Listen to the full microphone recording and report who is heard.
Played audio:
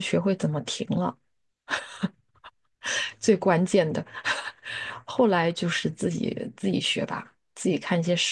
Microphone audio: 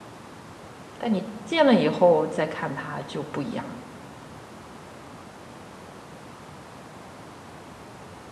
user only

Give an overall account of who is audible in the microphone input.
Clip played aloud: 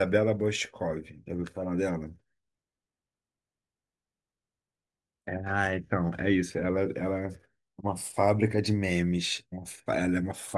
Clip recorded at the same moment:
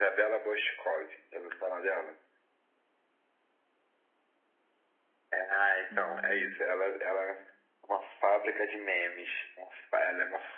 both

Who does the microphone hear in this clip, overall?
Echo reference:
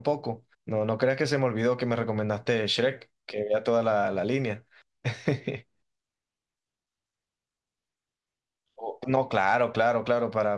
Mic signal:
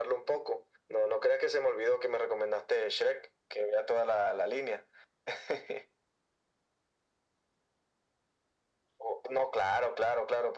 echo only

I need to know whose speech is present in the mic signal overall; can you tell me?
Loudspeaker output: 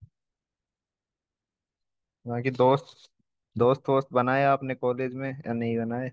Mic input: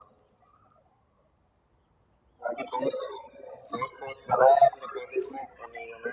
echo only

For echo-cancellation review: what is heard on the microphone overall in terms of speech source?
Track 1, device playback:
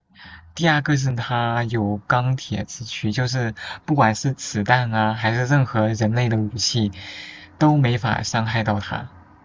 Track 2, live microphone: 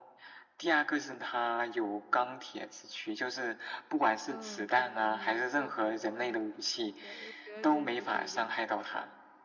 both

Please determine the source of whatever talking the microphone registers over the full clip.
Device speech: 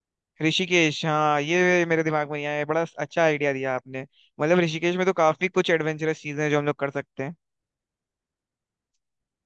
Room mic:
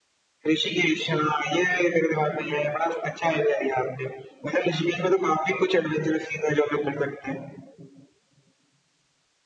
echo only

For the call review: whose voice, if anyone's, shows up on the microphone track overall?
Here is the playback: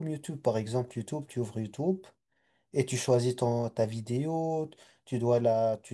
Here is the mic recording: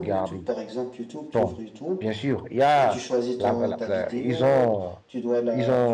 both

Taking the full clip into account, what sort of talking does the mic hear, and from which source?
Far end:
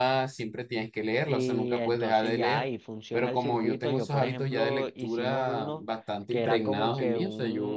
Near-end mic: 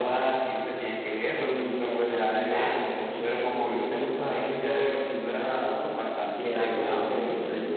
echo only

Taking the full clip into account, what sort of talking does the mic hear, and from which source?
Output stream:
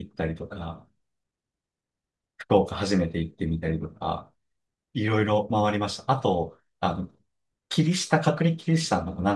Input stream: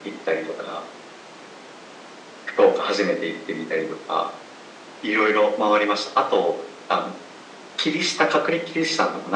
echo only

